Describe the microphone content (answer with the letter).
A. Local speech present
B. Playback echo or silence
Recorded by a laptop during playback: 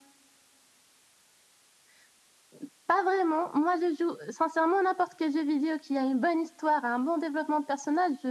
B